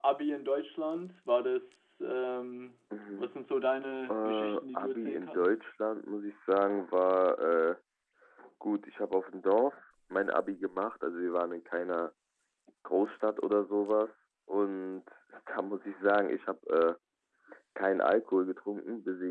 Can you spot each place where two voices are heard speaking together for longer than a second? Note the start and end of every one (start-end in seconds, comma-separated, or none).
4.1-5.5